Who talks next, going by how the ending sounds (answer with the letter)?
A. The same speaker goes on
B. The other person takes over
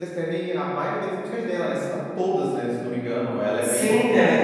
B